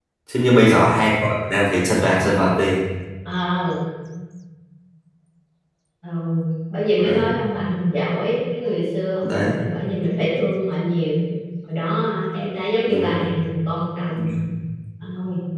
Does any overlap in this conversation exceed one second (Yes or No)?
No